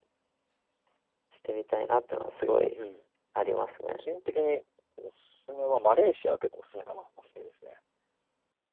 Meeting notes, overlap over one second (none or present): none